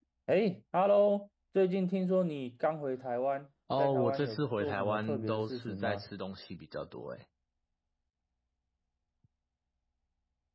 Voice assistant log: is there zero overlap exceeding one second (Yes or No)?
No